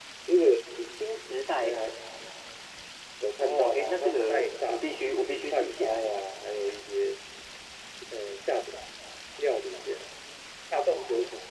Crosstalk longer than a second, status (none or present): present